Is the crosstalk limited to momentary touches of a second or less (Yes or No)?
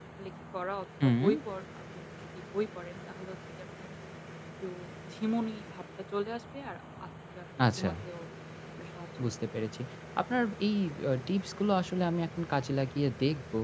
Yes